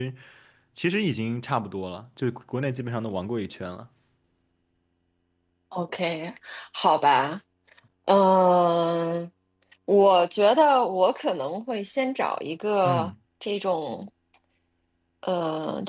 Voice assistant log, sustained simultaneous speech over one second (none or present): none